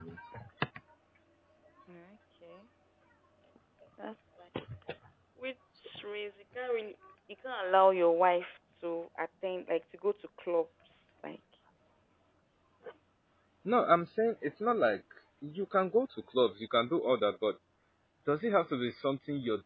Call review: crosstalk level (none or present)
none